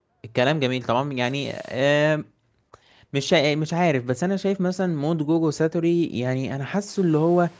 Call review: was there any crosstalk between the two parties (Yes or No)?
No